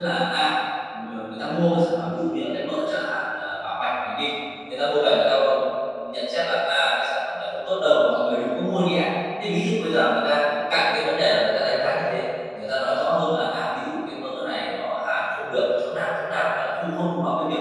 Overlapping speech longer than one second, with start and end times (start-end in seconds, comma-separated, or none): none